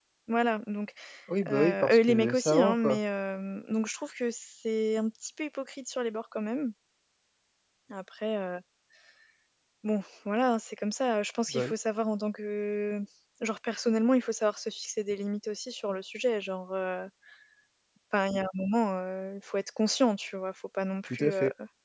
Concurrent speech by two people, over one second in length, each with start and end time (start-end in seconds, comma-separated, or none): 1.5-3.0